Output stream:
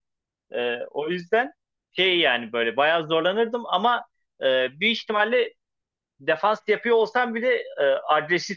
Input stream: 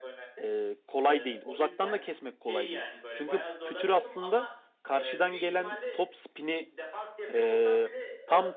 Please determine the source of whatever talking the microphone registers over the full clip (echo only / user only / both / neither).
both